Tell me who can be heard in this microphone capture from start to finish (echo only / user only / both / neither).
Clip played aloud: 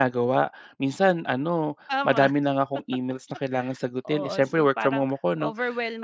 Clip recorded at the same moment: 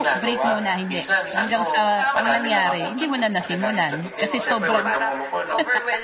both